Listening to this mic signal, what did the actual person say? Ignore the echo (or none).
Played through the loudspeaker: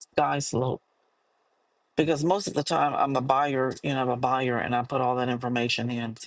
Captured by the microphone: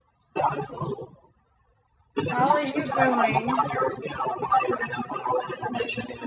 How are you doing?